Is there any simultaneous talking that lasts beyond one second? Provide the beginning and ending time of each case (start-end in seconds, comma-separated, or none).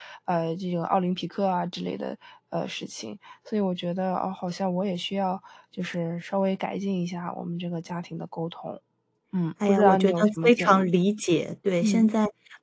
9.7-10.9